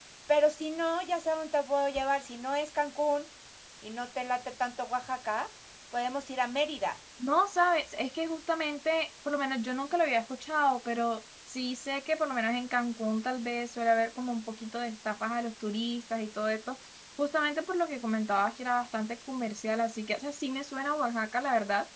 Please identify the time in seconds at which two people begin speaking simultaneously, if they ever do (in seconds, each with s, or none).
none